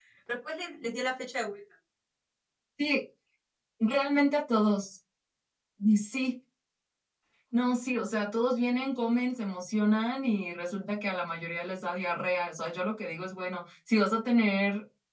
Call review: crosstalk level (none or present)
none